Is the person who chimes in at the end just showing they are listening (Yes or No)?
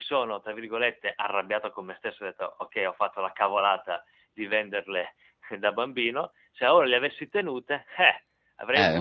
No